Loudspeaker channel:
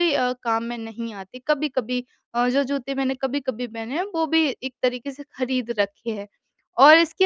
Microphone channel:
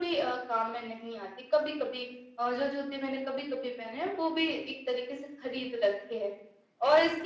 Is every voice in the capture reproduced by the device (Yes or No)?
Yes